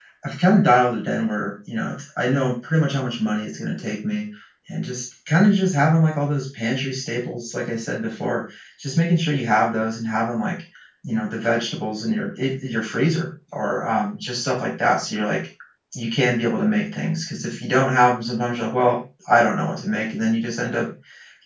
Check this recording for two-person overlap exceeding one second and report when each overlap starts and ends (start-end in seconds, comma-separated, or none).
none